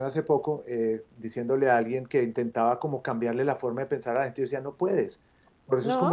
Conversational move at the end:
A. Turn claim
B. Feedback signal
B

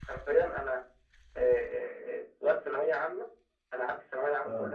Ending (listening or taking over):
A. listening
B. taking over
A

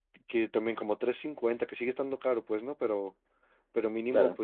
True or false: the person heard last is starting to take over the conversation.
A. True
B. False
B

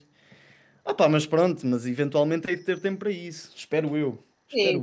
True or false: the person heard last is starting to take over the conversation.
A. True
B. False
A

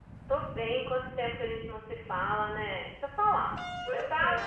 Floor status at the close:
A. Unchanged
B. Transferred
A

